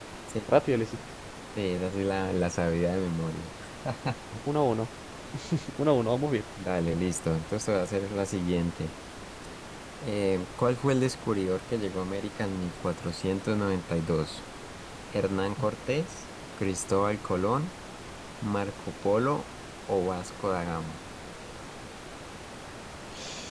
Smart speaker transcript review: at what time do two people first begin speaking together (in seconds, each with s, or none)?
none